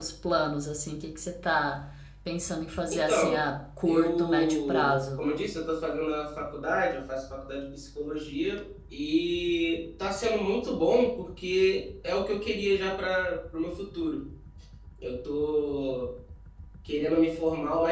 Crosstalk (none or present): present